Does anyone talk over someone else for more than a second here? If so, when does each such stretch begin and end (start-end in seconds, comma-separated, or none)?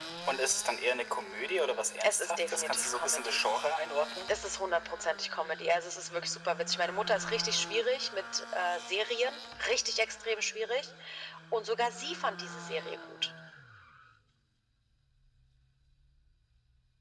2.0-3.4